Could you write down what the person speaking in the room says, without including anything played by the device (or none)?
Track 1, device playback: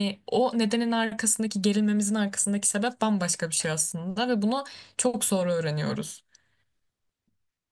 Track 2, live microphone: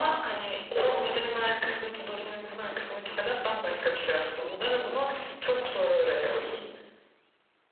none